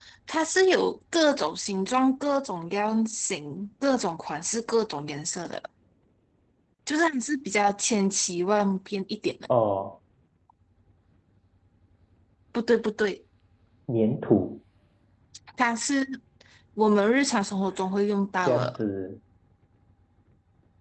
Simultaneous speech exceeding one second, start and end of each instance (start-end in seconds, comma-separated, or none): none